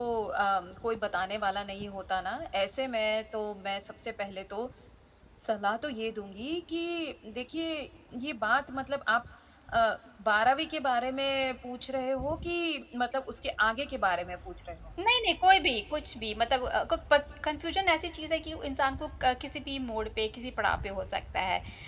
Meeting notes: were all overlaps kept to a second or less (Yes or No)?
Yes